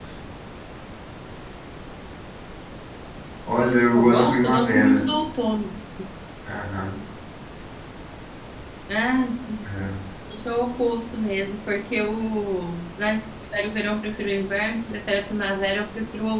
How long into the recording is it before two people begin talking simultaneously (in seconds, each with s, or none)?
3.9 s